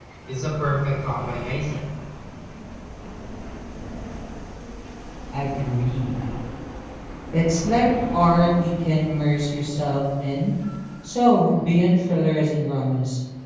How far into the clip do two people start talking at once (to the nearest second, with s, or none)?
none